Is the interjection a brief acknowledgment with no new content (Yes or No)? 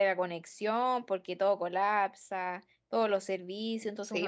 No